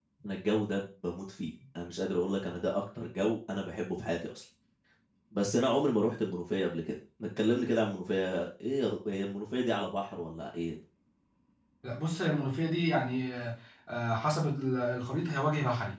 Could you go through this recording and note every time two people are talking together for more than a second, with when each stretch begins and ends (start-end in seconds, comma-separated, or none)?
none